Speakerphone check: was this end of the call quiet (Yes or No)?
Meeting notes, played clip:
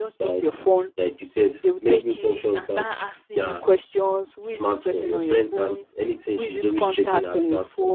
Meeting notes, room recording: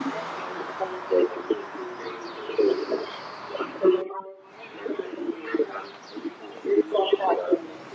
Yes